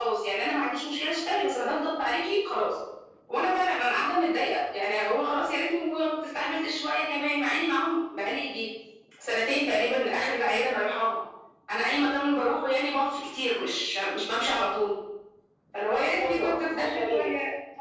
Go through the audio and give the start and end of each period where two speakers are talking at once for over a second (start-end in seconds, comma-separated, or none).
15.8-17.3